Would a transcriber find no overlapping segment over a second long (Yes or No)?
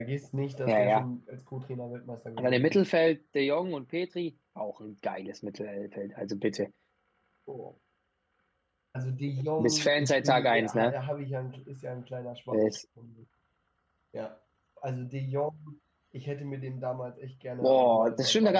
No